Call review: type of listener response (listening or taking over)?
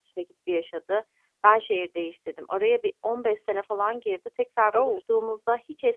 listening